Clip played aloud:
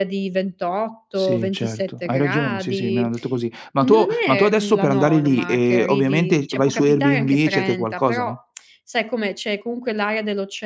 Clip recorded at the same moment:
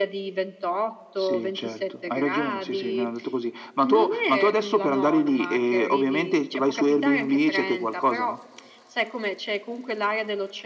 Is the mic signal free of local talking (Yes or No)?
Yes